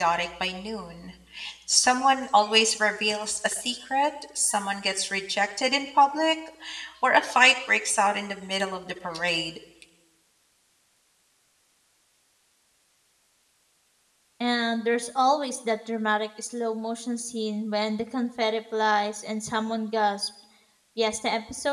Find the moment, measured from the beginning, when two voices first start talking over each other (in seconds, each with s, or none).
none